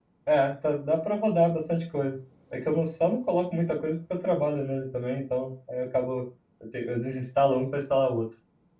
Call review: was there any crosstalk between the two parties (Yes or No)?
No